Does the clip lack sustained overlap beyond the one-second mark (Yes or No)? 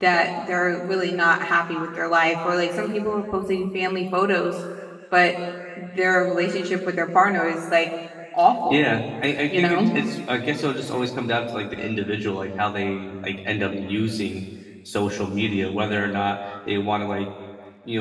Yes